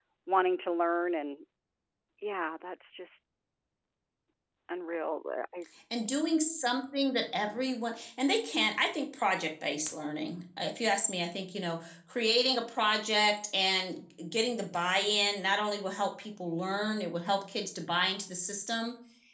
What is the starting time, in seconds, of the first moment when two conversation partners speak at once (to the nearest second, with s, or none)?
none